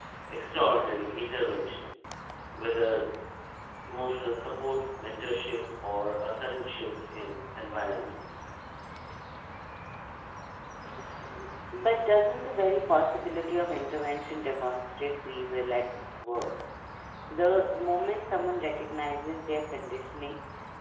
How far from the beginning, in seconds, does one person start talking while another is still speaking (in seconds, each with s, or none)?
none